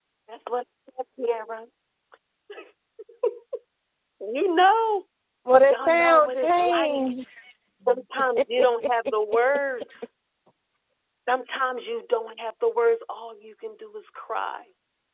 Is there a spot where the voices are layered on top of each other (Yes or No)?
Yes